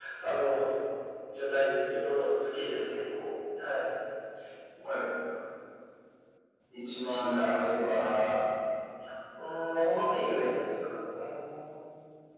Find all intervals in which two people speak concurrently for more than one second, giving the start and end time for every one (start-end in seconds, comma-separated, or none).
6.8-8.2